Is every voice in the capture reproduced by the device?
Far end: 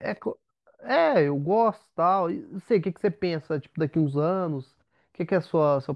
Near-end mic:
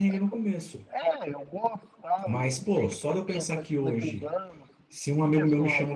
No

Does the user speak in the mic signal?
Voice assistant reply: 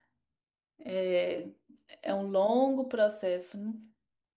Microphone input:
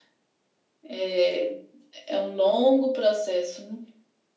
No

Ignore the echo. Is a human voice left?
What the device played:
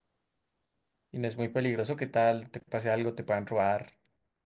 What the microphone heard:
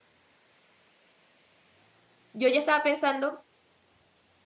Yes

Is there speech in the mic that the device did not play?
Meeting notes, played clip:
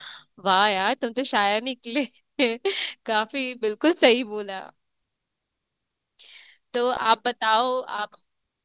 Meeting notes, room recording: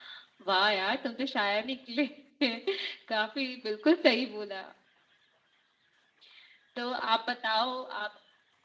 No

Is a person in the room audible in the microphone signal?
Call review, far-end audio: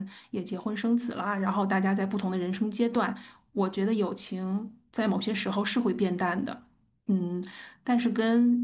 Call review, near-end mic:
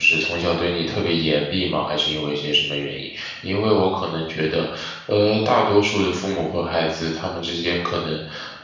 Yes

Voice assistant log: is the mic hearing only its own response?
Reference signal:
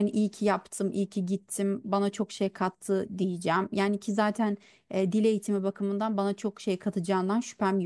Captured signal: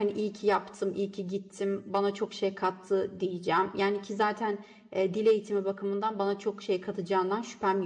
Yes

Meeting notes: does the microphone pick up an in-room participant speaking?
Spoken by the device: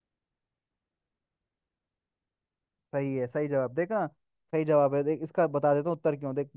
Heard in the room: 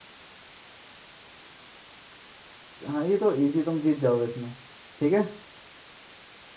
Yes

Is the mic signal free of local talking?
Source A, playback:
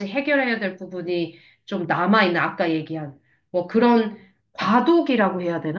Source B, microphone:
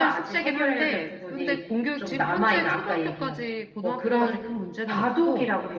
No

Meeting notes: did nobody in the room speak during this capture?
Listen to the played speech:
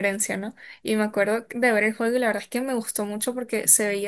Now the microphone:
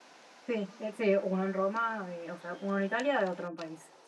No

